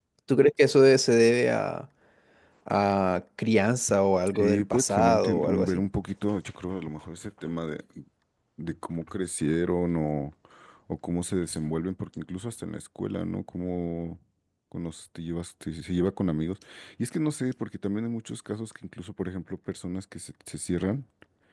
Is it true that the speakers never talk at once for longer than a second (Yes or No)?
No